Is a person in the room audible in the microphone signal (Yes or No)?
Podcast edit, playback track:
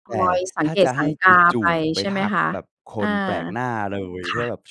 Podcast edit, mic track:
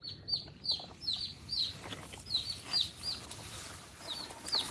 No